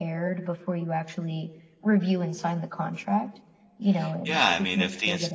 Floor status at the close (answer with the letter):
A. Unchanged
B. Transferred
B